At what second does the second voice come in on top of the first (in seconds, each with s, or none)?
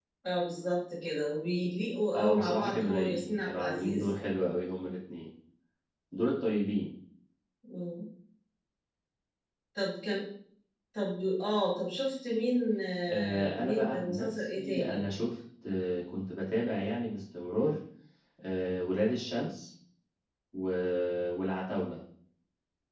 2.1 s